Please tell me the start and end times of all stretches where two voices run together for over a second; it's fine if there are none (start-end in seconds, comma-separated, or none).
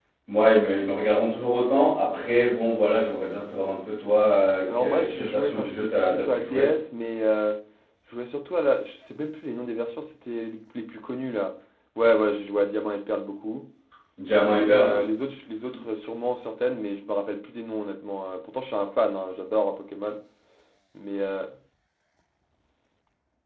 4.7-6.7